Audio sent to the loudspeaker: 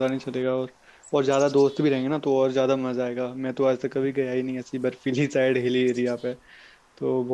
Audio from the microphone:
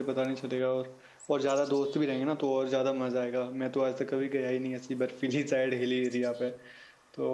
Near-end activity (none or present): none